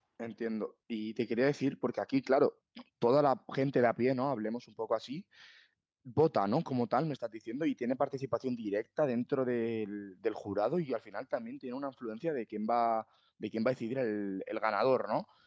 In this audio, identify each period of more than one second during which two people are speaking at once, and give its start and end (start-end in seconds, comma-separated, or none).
none